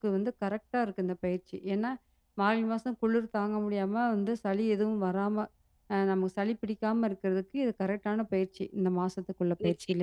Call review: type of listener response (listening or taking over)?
taking over